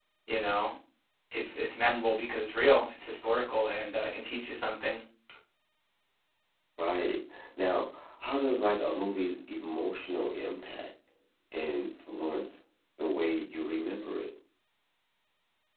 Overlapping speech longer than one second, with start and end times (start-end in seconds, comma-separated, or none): none